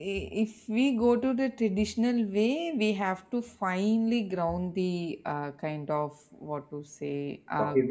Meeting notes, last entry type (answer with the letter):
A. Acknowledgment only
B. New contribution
A